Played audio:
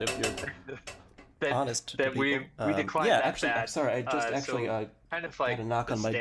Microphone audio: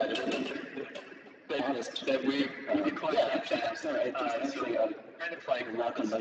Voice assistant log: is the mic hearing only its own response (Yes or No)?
Yes